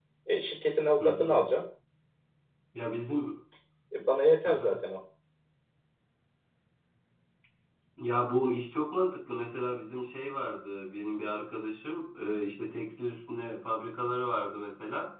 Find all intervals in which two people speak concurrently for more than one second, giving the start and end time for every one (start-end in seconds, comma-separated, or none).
none